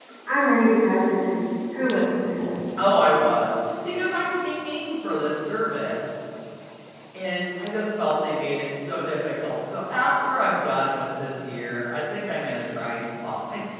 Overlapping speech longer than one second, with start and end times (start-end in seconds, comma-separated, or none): none